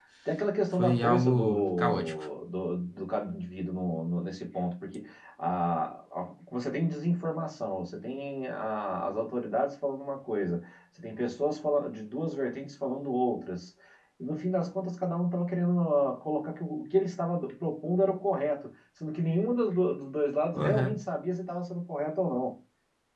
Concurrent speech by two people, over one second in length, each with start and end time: 0.8-2.1

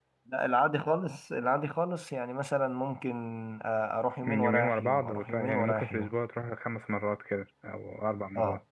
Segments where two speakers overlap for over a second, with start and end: 4.2-6.1

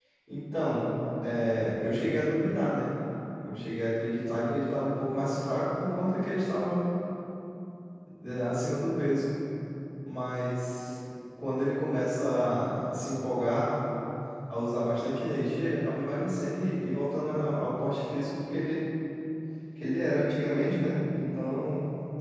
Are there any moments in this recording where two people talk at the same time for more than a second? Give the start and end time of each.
none

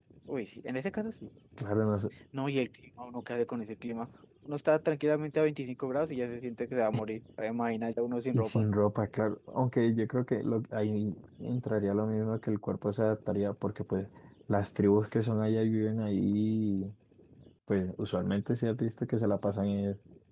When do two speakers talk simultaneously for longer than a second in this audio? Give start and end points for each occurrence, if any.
none

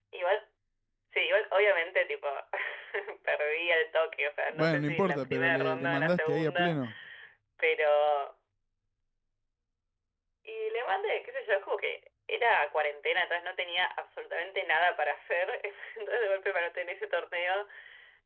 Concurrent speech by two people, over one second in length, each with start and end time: 4.5-6.8

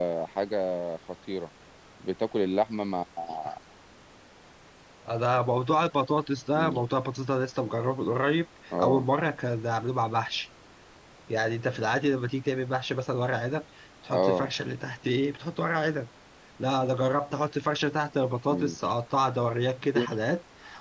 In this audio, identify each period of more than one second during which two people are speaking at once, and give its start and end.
none

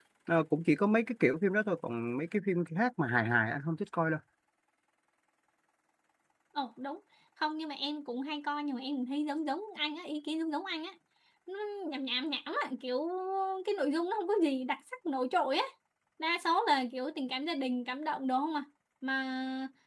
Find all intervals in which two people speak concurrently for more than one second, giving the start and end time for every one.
none

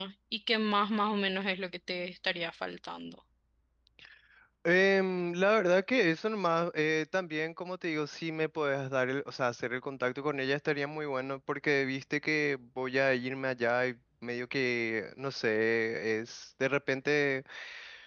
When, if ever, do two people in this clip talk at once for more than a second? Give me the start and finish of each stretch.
none

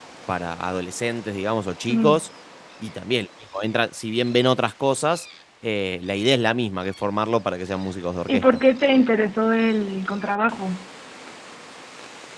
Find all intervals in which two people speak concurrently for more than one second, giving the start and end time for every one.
none

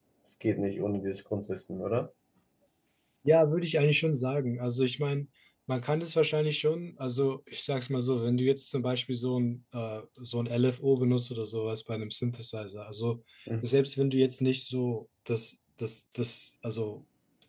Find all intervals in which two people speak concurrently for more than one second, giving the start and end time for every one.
none

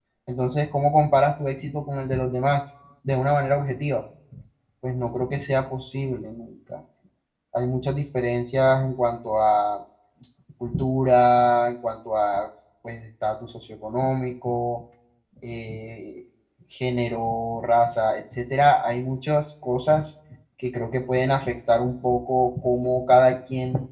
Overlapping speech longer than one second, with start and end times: none

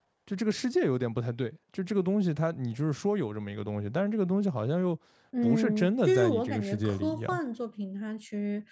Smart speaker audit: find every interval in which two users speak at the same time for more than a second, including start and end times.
5.4-7.4

